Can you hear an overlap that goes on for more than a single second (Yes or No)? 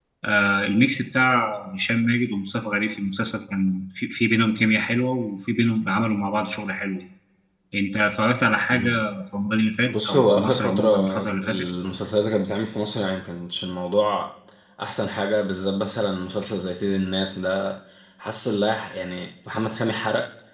Yes